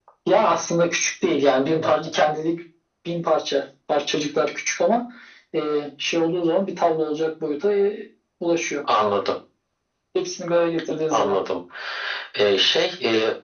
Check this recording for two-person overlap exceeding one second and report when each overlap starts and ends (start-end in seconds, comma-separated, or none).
none